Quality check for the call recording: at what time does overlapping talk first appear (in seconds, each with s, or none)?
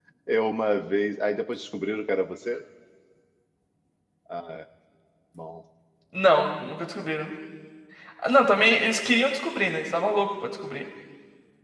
none